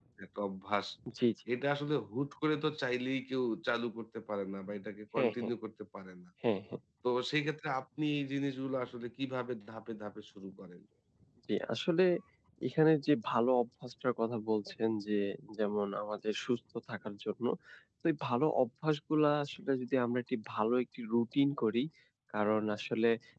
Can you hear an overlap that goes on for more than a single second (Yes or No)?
No